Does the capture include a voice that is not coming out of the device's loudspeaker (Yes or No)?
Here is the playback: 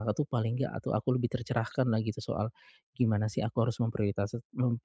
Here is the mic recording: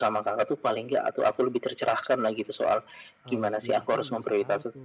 Yes